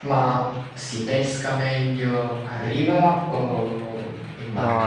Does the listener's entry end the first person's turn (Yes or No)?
Yes